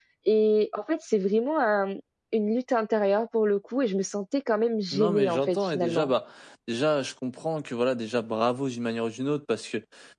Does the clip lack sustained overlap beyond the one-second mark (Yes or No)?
No